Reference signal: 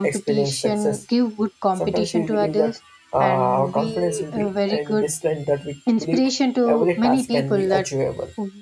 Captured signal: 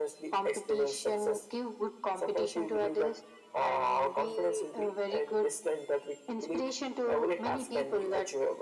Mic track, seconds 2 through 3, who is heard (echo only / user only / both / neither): echo only